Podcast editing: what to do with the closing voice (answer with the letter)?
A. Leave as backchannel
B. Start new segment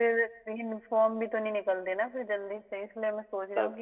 A